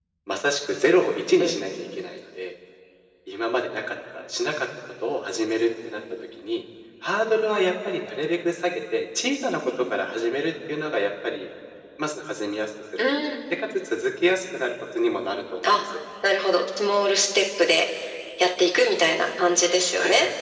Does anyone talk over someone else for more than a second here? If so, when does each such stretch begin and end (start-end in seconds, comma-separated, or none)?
none